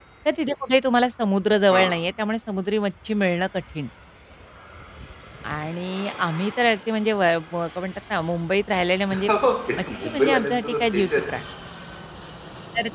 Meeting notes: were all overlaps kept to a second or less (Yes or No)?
No